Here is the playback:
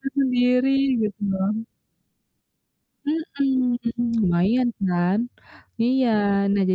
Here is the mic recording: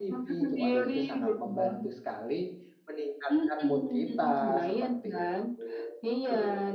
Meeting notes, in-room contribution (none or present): present